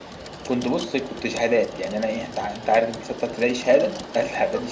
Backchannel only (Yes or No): No